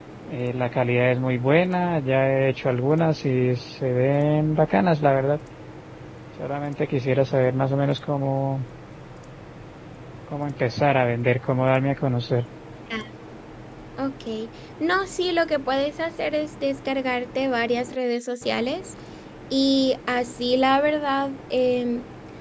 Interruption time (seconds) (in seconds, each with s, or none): none